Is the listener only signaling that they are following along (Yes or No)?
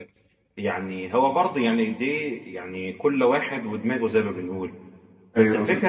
Yes